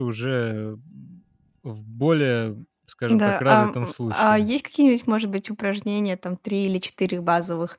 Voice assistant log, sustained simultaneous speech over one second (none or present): present